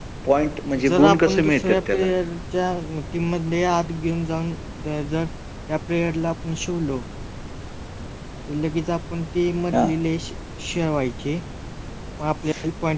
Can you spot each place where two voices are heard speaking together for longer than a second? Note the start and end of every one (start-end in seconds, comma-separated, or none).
0.9-2.1